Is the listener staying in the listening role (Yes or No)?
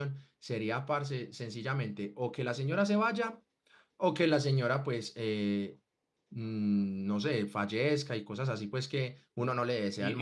No